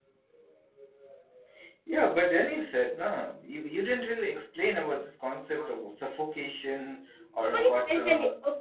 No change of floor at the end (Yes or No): No